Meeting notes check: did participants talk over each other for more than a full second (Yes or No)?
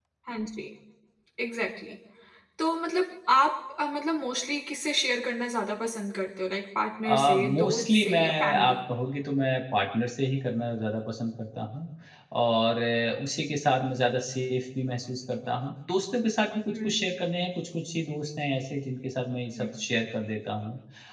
Yes